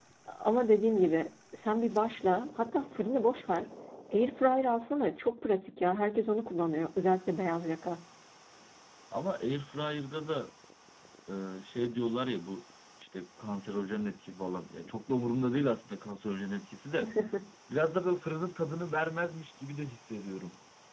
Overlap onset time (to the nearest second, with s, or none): none